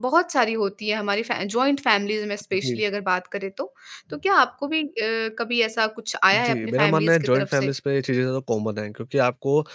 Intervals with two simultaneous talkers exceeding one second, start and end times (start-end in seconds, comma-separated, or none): 6.3-7.7